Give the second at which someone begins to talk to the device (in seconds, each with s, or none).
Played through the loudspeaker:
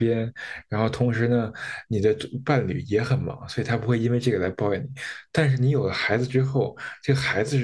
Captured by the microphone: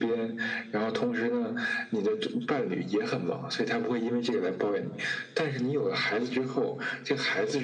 none